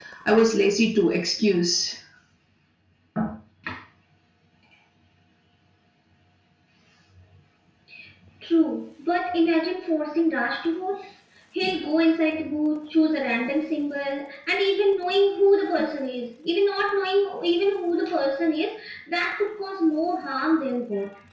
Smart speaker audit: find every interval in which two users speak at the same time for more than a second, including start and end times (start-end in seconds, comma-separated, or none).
none